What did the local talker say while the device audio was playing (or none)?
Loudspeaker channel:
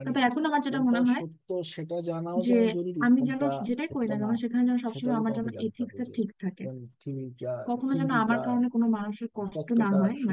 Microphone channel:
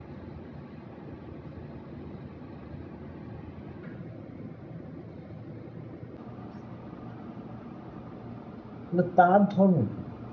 তাহলে তার ধর্ম কি